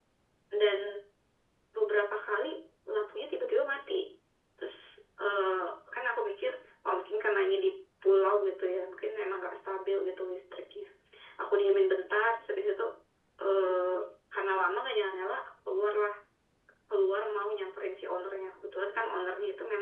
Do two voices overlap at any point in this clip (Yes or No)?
No